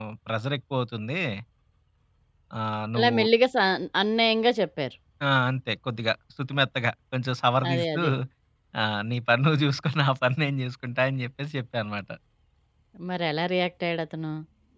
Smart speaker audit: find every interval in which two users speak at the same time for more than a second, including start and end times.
none

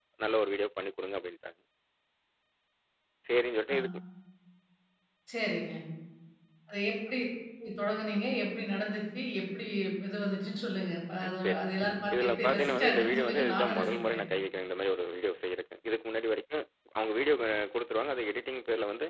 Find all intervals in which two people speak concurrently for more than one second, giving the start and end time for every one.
12.1-14.2

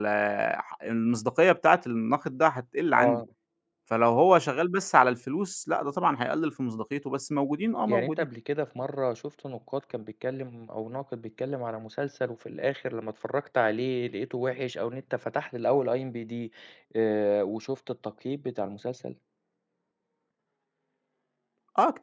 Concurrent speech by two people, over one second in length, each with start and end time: none

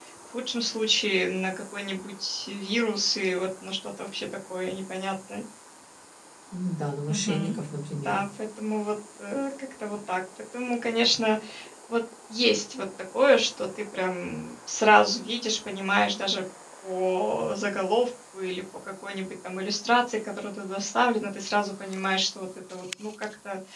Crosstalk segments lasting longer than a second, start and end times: none

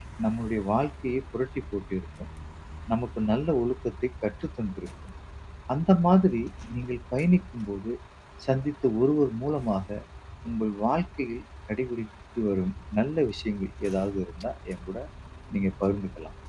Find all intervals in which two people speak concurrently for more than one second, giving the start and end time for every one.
none

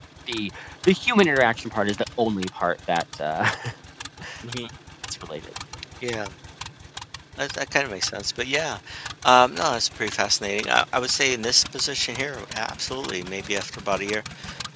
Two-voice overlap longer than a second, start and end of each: none

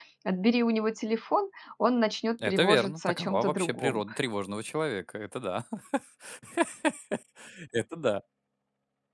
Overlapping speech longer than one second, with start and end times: 2.5-4.0

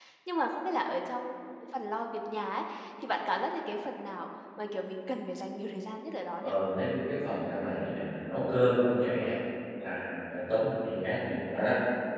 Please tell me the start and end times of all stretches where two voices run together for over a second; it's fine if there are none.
none

